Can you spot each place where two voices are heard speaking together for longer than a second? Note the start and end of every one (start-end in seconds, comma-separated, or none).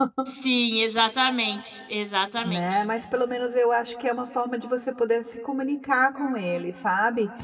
none